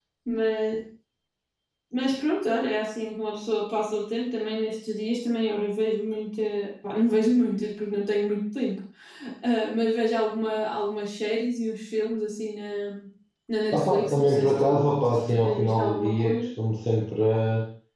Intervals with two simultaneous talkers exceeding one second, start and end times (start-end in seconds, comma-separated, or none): 13.7-16.5